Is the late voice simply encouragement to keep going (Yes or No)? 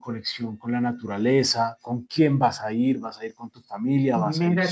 No